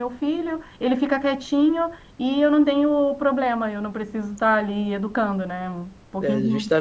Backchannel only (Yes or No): No